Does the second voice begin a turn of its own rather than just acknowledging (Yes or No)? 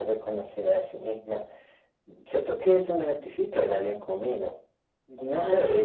No